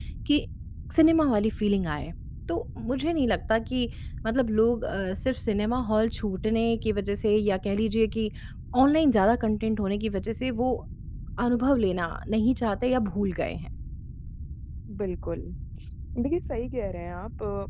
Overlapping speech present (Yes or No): No